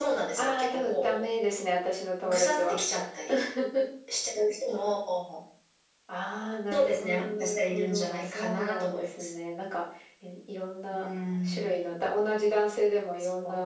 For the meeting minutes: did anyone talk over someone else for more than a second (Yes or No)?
Yes